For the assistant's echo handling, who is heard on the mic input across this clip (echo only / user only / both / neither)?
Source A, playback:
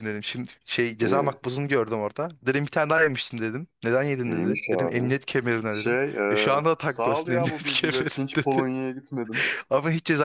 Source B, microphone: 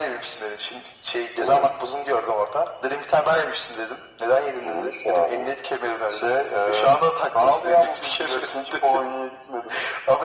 echo only